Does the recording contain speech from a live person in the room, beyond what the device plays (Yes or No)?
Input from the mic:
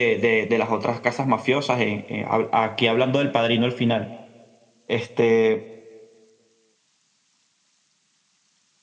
No